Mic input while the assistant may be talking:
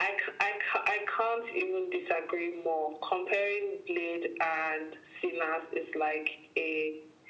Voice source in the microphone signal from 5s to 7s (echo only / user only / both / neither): echo only